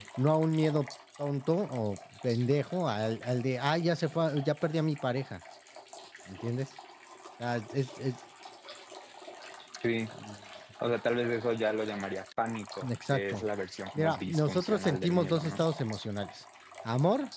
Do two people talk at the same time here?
Yes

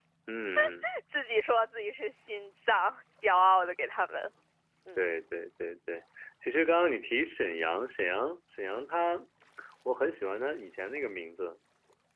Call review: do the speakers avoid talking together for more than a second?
Yes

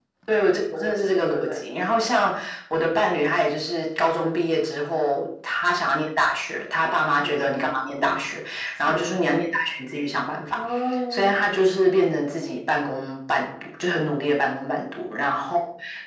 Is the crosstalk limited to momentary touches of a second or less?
No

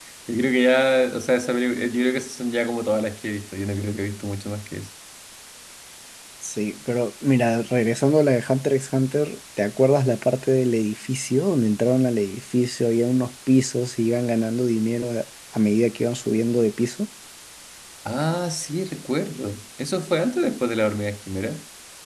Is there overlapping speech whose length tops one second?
No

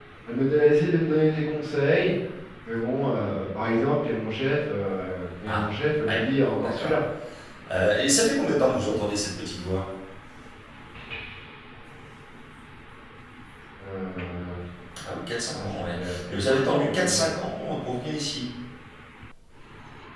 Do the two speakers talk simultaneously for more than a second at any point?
Yes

